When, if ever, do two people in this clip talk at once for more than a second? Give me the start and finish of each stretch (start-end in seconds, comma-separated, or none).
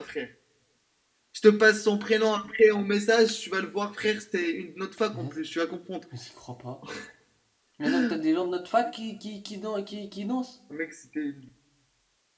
none